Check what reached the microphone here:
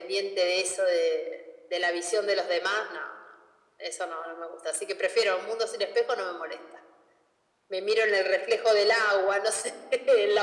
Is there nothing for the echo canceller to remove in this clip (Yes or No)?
No